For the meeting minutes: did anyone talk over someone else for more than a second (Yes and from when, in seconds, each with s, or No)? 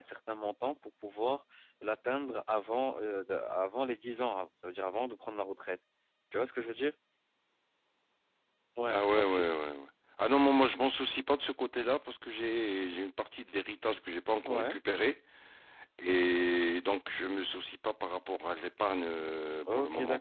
No